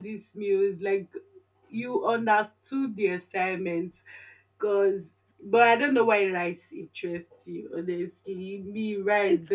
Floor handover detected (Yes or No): Yes